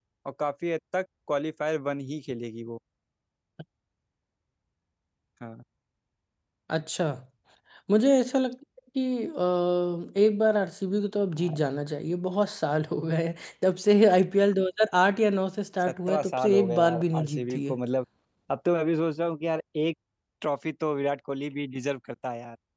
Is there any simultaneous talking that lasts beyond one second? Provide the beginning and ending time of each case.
15.8-17.8

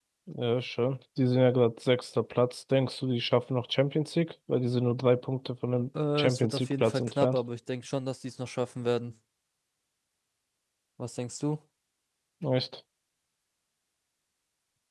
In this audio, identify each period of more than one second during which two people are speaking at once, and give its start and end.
6.2-7.4

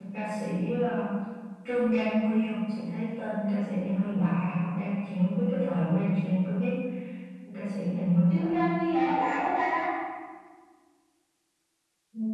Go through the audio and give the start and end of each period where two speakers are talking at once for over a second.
none

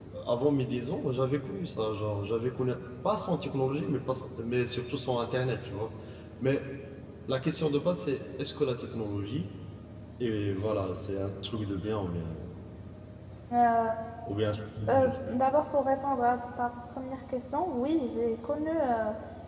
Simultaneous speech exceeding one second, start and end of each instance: none

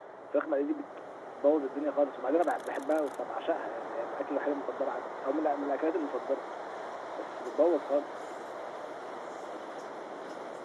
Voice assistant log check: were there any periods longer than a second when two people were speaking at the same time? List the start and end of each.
none

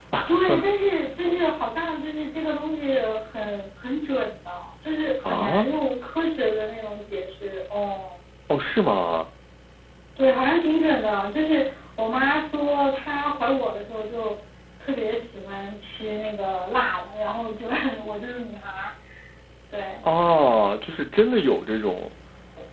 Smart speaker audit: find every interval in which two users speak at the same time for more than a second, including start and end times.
none

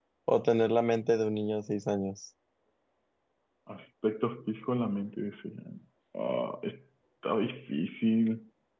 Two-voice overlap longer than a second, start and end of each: none

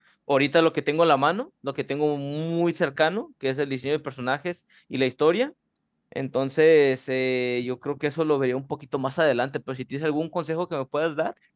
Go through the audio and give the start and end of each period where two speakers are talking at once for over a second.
none

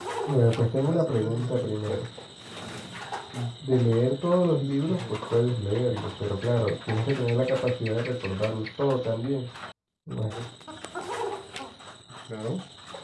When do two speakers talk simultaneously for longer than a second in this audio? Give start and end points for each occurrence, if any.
0.9-2.1

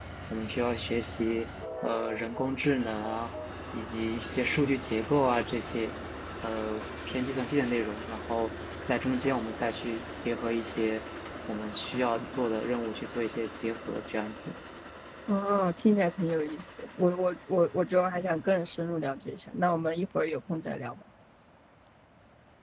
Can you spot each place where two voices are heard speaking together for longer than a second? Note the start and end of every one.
none

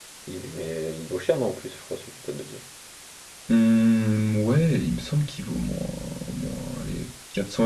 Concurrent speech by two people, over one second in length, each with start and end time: none

